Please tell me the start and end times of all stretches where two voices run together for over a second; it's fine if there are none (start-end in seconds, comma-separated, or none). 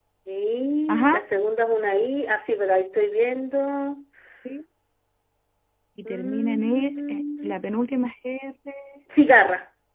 6.1-7.5